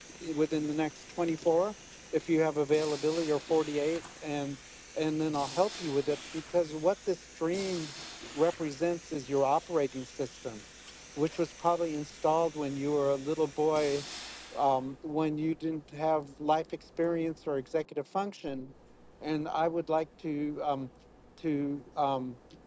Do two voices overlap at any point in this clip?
No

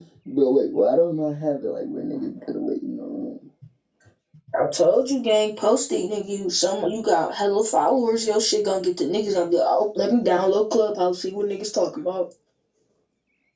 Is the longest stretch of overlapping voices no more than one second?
Yes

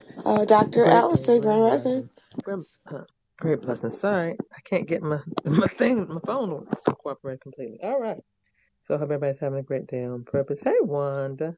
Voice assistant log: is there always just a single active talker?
No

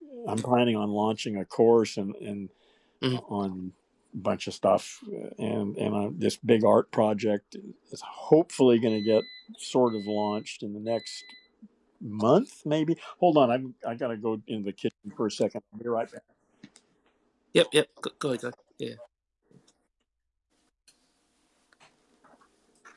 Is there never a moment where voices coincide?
Yes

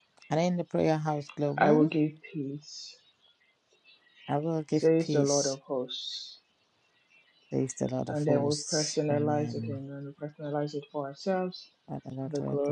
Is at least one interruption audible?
Yes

